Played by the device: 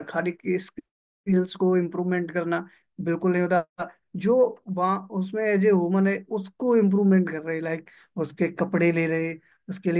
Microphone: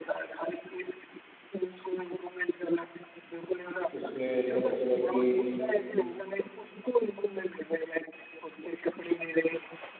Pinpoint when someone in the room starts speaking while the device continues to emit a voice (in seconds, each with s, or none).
4.0 s